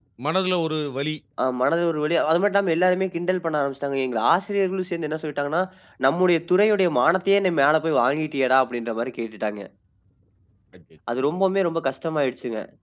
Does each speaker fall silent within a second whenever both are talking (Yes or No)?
Yes